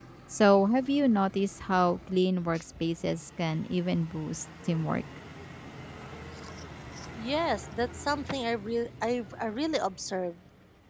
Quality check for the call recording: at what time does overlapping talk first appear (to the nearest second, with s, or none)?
none